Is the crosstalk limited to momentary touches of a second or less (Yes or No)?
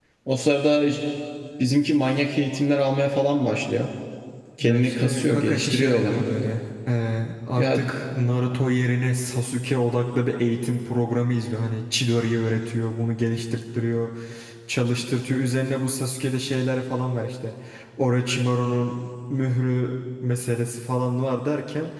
No